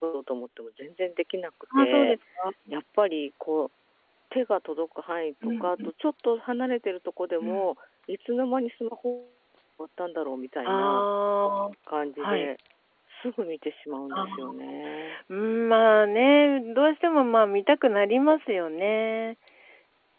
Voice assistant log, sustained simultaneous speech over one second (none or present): none